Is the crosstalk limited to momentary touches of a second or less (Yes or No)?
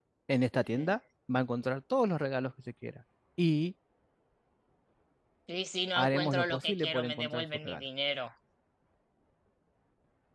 No